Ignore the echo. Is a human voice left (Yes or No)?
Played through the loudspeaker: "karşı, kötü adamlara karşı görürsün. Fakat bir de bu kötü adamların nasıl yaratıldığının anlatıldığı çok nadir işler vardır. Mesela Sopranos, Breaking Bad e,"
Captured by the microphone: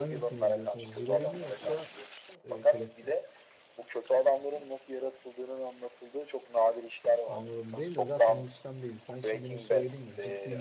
Yes